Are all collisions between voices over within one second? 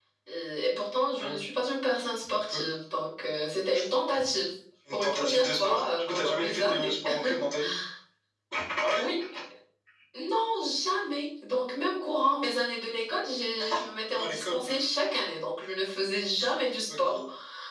No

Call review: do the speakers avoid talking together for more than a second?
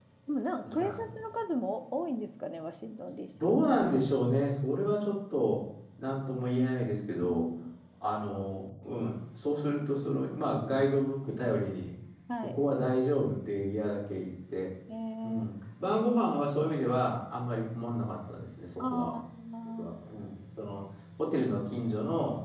Yes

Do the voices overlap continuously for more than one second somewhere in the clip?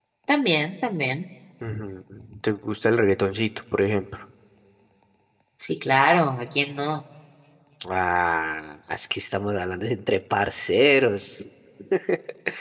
No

